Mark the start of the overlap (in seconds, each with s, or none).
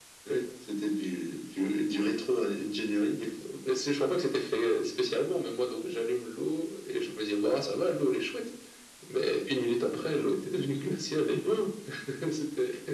none